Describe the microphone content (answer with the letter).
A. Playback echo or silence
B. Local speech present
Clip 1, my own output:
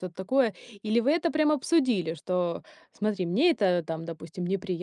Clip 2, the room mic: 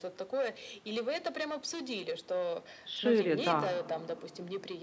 B